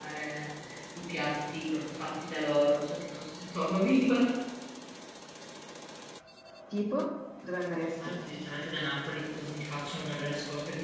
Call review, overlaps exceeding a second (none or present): none